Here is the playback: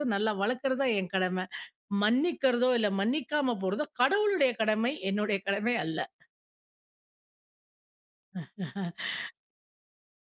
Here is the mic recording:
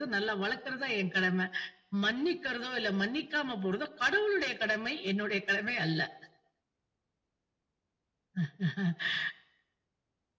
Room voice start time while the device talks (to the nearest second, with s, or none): none